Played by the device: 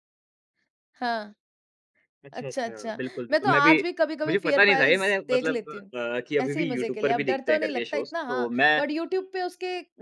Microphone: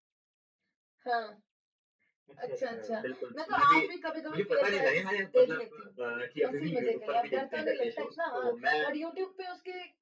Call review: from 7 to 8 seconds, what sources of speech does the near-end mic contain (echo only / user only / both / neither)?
echo only